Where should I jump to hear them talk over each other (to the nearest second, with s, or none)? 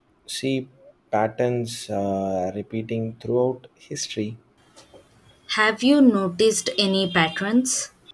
none